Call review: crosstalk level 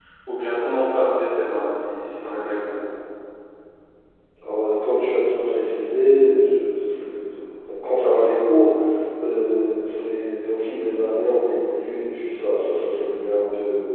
none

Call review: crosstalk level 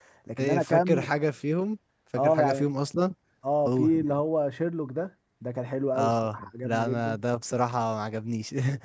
present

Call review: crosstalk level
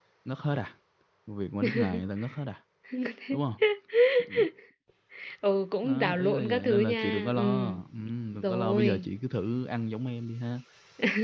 present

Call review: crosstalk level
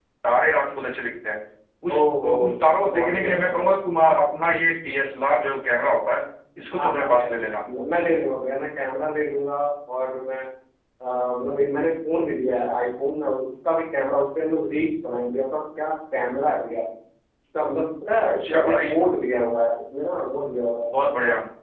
present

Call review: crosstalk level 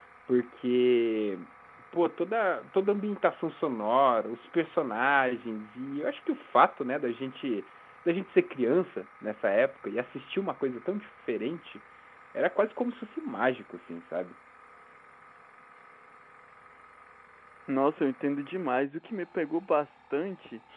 none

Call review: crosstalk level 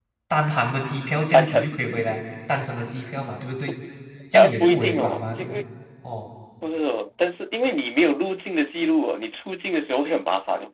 present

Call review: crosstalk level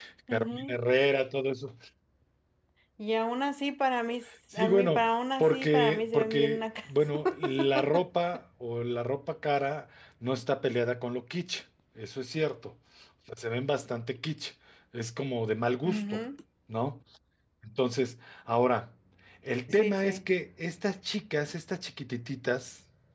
present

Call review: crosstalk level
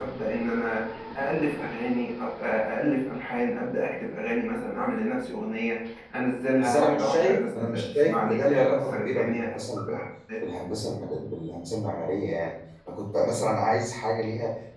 present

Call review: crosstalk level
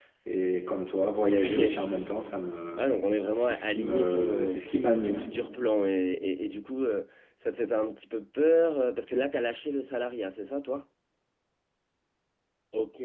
present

